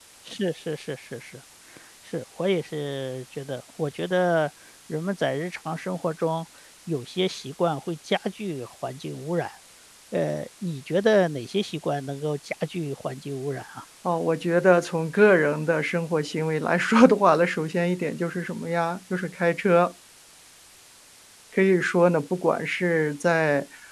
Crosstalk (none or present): none